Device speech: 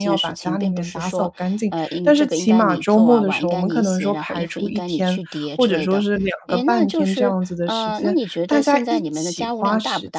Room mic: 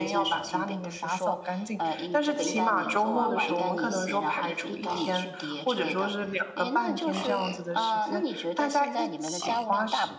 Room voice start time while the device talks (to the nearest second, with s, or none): none